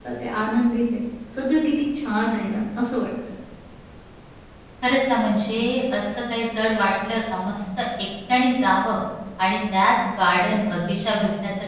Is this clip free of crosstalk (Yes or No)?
Yes